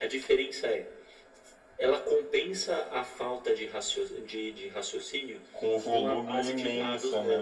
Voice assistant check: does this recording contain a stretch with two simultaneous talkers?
Yes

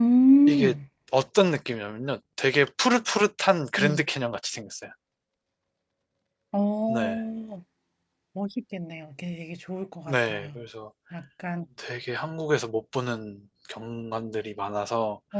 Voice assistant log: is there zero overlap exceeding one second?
Yes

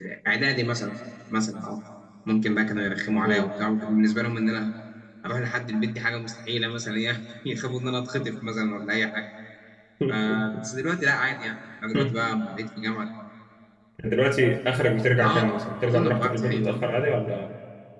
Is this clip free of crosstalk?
No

